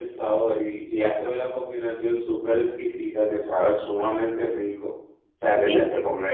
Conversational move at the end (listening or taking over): taking over